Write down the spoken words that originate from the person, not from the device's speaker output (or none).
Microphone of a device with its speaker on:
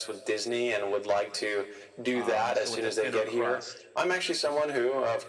um, so with a thinner crust.